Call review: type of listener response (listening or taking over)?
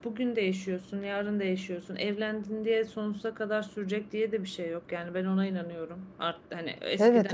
listening